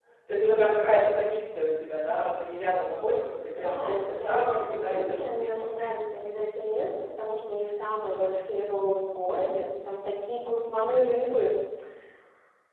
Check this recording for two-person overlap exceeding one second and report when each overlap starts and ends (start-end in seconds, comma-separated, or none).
3.6-5.9